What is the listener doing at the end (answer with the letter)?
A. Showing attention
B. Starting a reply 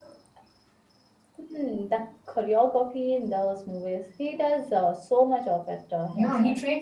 B